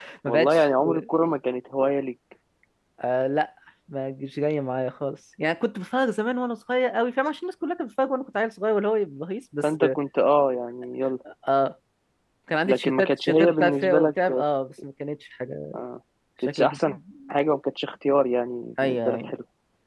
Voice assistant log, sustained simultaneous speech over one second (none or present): present